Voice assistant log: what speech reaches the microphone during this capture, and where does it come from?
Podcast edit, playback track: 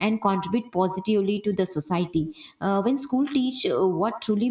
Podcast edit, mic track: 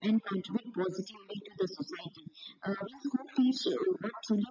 echo only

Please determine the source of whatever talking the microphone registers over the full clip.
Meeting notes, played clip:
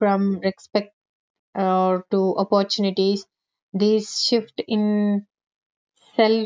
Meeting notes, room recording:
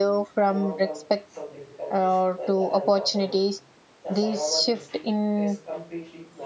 both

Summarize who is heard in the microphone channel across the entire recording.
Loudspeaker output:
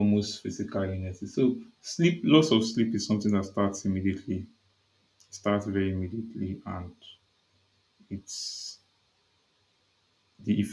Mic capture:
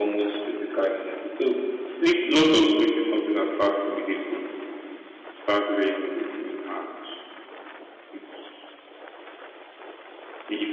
echo only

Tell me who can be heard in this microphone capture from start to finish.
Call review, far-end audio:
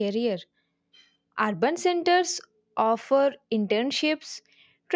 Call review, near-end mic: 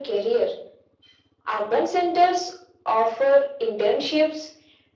echo only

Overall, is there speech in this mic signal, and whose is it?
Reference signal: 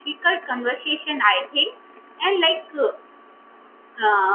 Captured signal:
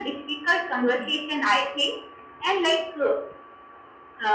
both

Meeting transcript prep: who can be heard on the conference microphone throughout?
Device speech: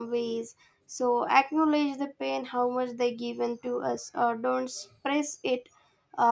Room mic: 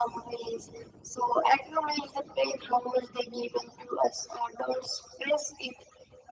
echo only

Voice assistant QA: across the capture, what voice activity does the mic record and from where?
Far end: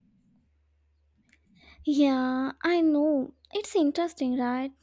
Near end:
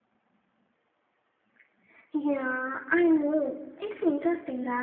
echo only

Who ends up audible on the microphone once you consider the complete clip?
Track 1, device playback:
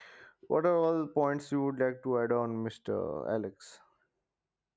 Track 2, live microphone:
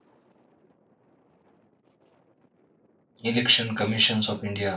user only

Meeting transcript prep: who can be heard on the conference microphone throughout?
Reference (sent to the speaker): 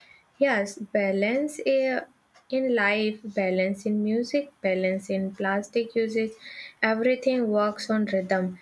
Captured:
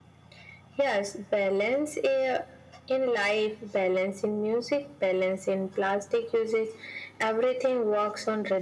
echo only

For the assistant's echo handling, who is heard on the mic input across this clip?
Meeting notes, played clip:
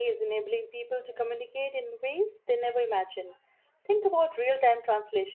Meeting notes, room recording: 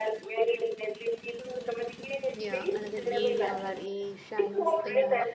both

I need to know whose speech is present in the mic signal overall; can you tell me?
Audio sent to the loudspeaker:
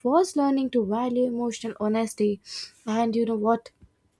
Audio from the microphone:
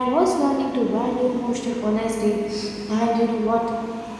echo only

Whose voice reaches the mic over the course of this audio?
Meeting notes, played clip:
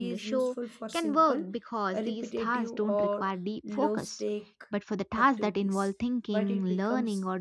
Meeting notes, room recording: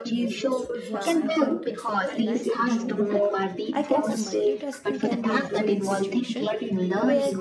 both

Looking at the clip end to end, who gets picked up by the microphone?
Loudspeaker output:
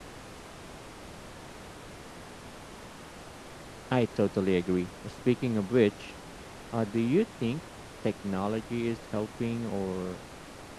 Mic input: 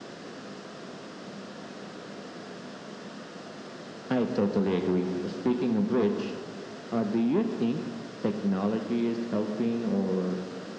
echo only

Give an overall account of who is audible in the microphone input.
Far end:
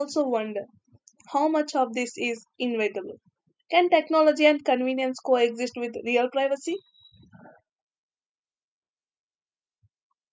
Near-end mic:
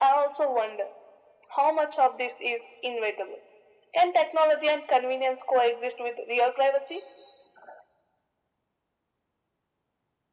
echo only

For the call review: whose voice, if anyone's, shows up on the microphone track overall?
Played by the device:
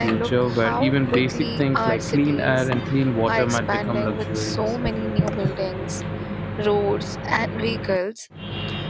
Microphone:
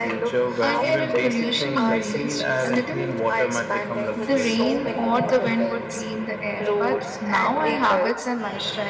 both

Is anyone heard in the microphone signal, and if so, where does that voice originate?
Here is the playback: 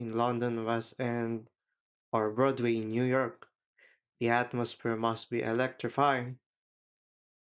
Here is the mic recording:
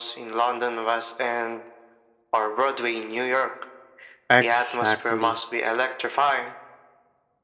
both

